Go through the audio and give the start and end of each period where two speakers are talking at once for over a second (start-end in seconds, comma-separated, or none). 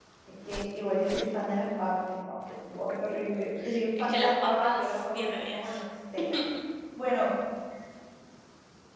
4.0-5.8